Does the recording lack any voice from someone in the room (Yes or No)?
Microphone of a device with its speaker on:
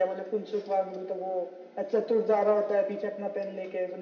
Yes